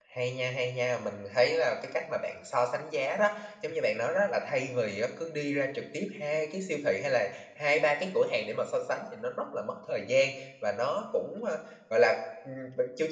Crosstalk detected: No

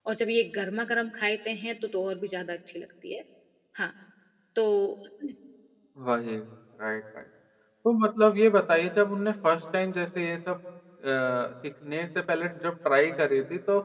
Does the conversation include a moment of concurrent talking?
No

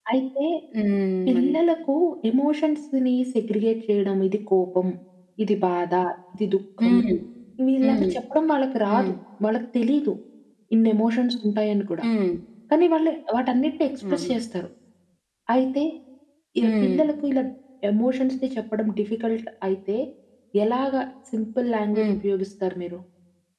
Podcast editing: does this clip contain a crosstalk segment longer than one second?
No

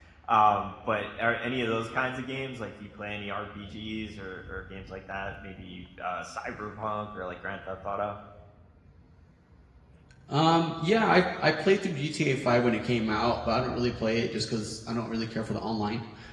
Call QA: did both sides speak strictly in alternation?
Yes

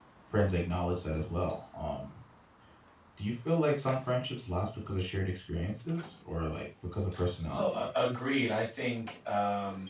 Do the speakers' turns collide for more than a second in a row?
No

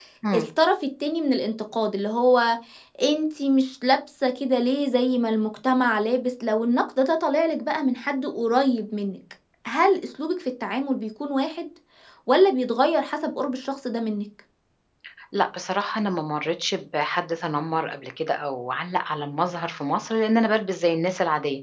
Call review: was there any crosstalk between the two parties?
No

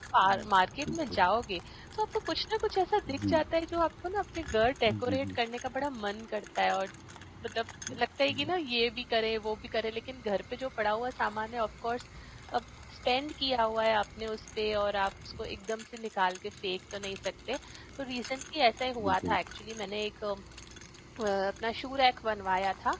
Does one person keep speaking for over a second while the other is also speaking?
No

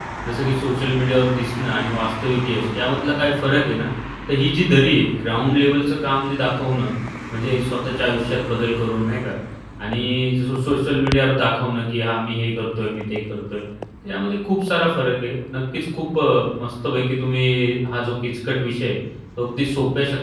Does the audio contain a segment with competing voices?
No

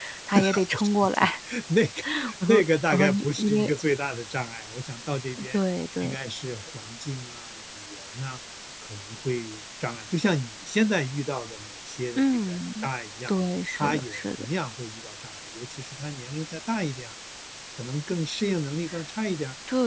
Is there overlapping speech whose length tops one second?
Yes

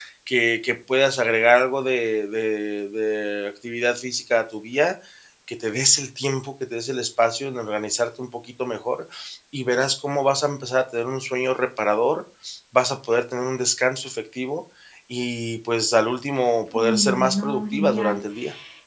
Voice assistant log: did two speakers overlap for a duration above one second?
Yes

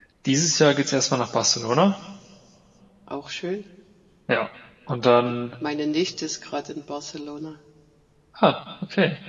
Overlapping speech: No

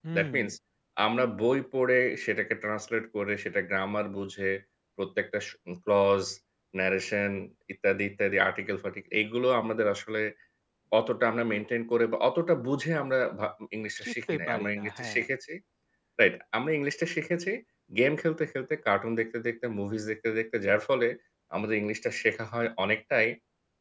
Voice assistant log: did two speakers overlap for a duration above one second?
Yes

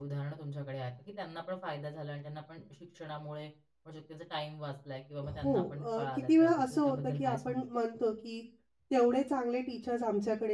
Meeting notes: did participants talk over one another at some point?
Yes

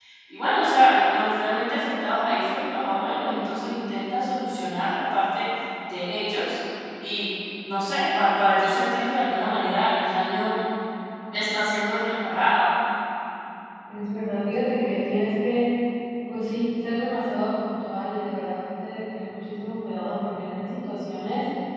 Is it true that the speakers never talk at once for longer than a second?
Yes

